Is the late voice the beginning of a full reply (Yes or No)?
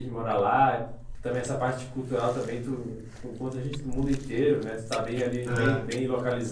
No